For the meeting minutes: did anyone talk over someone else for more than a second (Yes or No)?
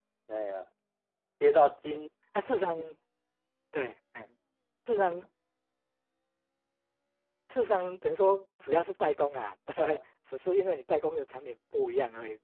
No